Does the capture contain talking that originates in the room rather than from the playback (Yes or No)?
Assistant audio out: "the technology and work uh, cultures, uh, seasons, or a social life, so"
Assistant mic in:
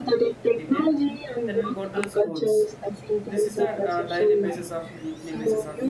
Yes